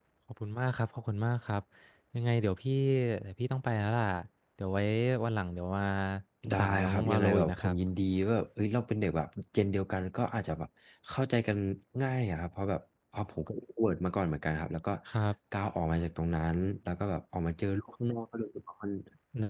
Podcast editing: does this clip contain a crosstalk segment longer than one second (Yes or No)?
Yes